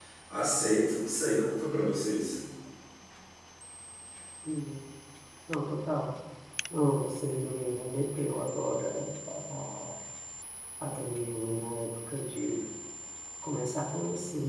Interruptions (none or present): none